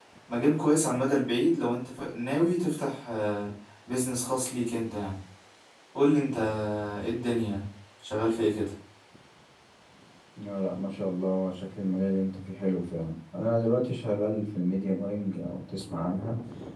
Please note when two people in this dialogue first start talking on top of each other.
none

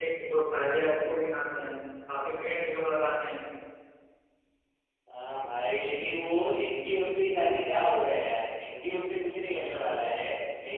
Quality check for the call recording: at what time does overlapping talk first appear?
none

